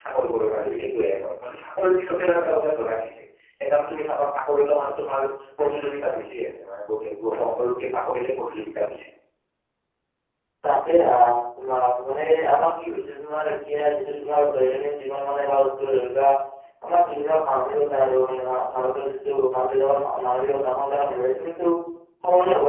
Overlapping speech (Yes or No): No